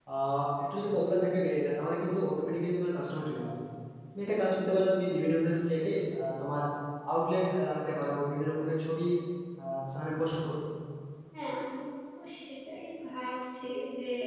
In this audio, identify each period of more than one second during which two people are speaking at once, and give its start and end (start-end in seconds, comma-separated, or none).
none